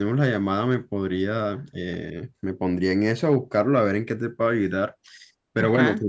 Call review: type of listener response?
listening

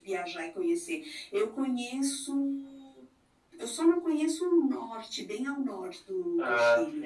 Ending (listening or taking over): listening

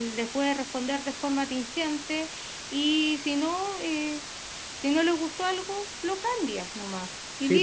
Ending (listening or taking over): taking over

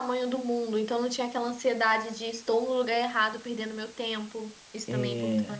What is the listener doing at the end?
taking over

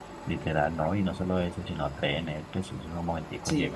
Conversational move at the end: listening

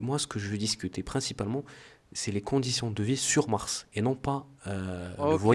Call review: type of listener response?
taking over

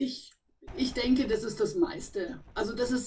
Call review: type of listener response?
listening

